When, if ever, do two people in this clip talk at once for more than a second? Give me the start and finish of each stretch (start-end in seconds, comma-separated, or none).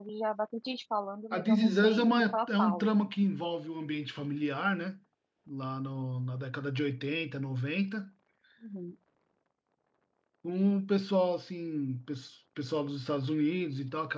1.3-2.8